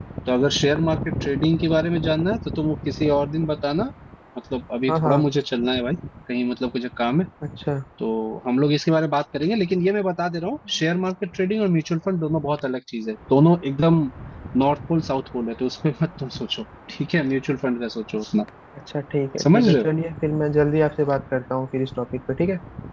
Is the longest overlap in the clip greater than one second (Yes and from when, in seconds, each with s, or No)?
No